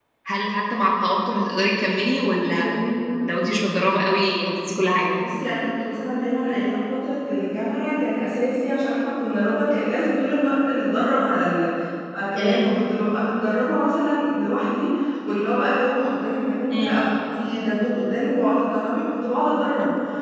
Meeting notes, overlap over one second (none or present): none